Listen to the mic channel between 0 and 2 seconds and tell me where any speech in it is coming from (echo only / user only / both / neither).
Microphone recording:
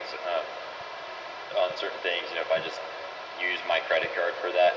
echo only